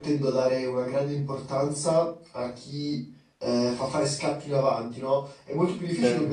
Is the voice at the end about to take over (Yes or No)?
No